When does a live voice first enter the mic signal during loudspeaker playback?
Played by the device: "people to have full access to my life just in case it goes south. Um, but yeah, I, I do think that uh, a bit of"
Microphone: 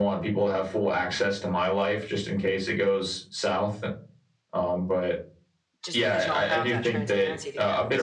5.8 s

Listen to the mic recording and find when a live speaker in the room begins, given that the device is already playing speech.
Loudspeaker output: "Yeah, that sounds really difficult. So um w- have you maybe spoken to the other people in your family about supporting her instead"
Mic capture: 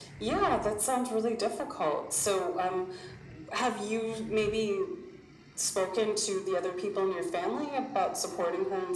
none

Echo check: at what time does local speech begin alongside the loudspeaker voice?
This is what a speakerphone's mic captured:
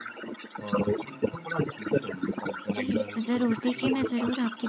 2.8 s

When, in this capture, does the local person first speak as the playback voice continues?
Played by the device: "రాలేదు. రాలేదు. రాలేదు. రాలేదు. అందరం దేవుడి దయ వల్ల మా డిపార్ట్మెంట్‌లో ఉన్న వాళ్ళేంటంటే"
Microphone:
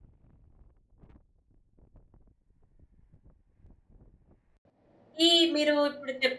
5.3 s

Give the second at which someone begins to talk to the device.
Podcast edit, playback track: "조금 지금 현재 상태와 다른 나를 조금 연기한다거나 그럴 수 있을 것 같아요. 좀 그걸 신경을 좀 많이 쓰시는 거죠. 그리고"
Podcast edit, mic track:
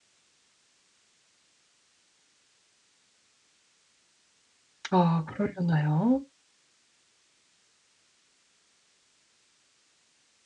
4.9 s

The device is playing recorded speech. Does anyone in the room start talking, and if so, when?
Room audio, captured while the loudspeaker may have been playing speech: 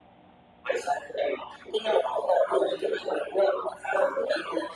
none

